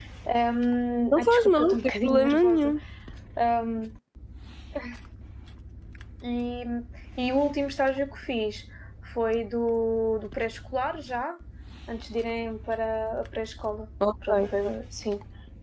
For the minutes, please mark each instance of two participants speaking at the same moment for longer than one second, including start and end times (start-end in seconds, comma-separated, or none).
1.1-2.7